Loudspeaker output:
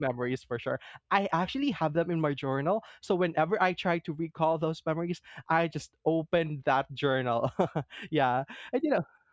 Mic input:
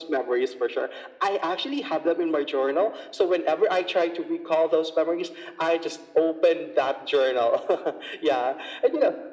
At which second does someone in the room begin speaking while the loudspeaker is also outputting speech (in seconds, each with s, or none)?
none